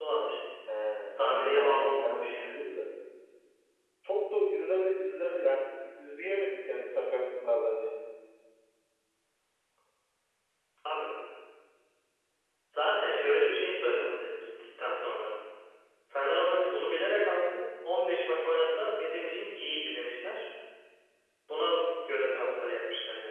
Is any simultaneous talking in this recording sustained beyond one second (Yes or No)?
Yes